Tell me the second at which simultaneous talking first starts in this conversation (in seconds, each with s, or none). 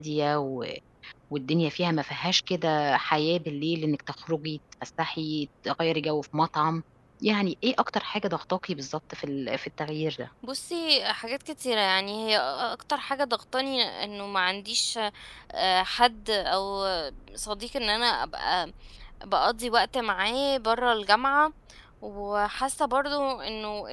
none